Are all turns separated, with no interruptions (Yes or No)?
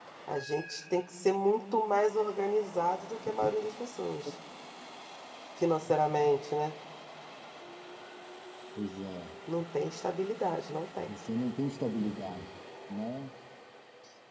Yes